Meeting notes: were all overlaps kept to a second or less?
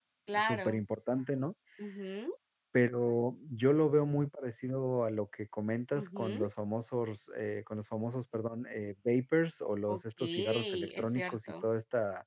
No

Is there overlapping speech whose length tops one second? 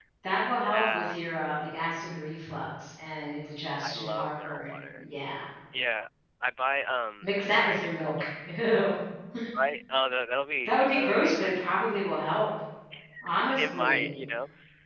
Yes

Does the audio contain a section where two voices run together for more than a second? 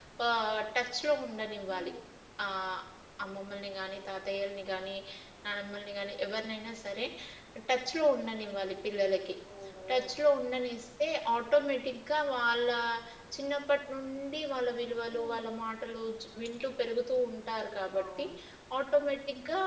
No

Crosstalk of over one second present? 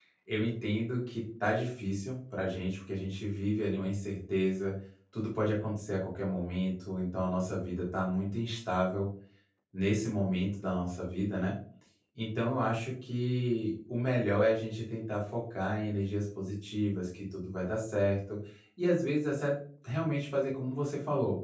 No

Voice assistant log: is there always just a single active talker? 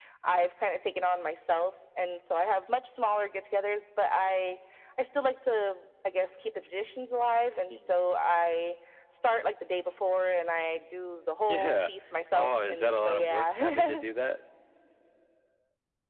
No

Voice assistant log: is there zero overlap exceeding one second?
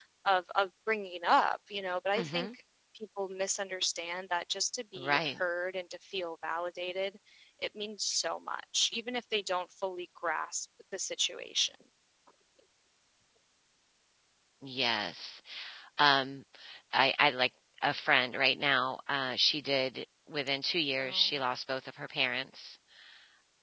Yes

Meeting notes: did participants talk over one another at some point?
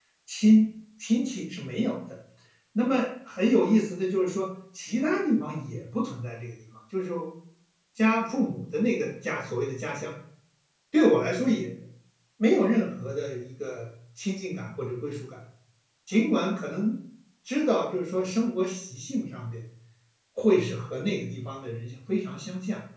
No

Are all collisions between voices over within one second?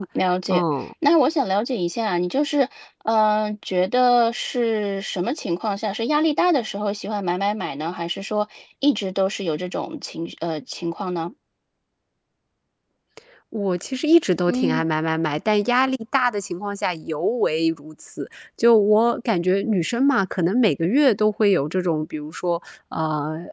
Yes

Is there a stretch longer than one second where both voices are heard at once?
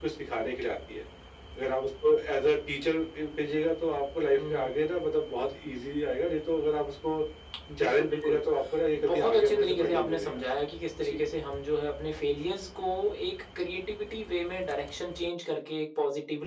Yes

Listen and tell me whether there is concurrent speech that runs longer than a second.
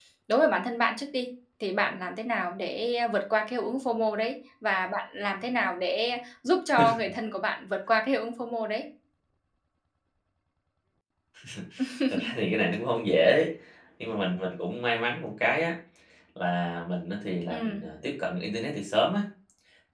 No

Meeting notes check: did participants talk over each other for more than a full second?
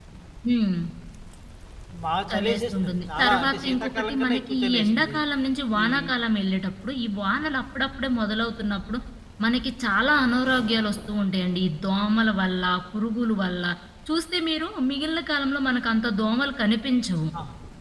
Yes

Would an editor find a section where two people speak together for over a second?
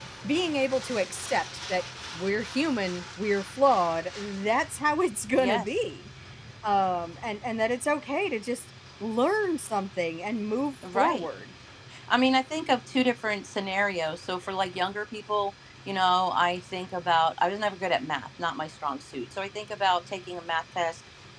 No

